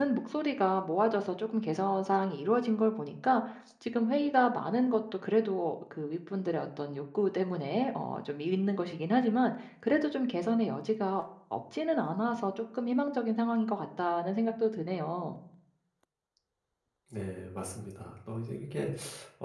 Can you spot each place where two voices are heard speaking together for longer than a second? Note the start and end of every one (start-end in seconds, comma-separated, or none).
none